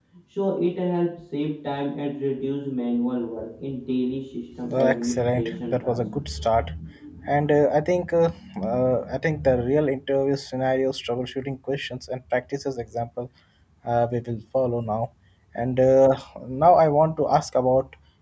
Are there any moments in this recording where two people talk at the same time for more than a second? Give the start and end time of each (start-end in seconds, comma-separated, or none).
4.7-6.0